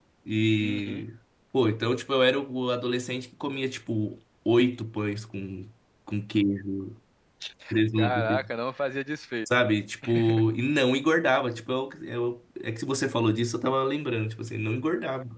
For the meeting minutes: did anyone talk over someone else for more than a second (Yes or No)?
No